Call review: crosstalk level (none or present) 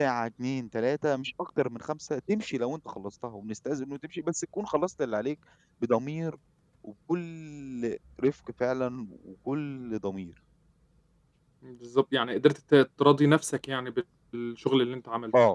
none